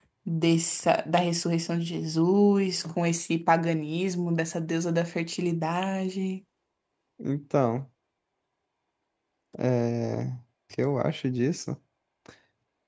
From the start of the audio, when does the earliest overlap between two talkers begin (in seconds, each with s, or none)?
none